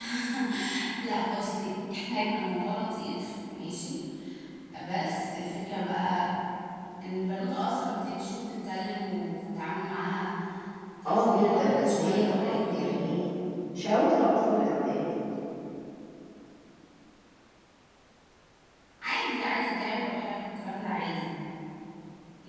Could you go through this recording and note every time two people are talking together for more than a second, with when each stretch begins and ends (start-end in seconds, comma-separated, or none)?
11.1-13.0